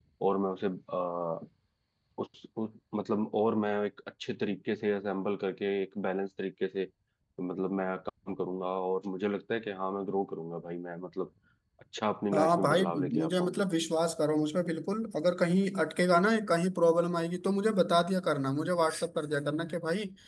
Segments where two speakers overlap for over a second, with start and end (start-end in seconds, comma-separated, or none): 12.3-13.6